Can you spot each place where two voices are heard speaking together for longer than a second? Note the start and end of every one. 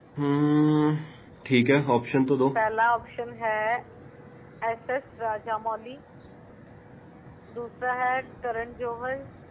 none

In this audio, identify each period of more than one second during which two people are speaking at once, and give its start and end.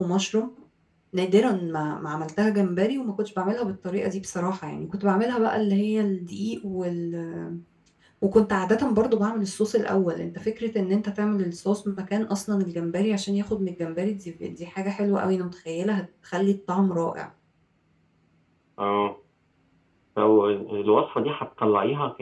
none

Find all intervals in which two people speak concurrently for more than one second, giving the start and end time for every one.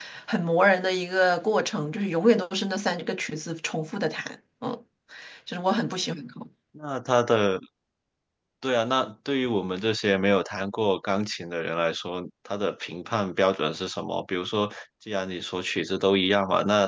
none

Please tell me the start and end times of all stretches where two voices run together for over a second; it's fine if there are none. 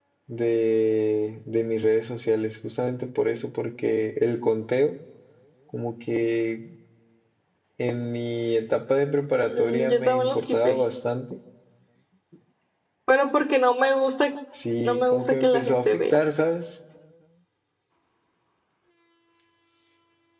9.6-10.8, 14.8-16.2

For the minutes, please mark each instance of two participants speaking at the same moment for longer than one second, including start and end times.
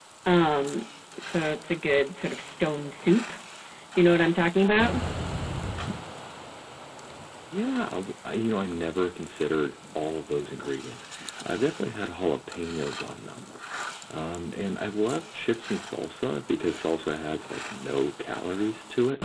none

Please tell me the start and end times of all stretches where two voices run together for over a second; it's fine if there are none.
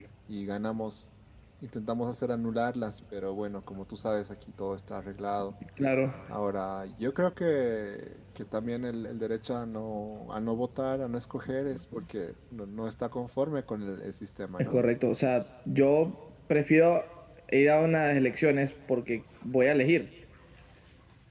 none

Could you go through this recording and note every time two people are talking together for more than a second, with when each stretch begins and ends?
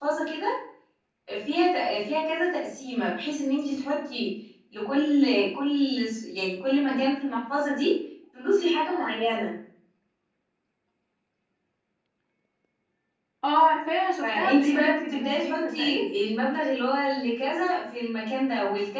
14.2-15.9

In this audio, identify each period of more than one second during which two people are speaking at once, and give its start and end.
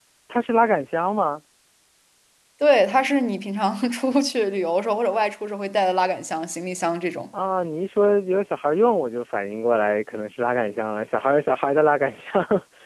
none

